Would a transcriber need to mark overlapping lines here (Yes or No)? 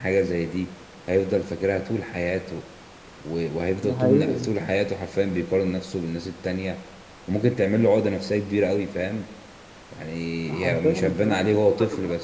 Yes